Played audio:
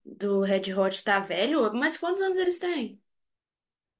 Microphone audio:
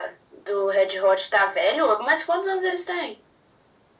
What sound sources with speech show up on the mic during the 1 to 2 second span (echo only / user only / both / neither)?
echo only